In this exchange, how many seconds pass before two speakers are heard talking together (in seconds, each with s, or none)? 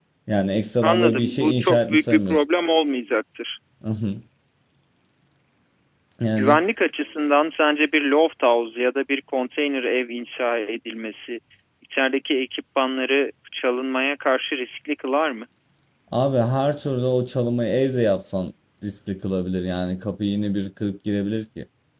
0.8 s